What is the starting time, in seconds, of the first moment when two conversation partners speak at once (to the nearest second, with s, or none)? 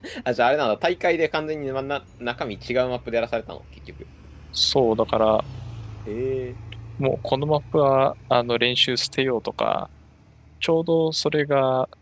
none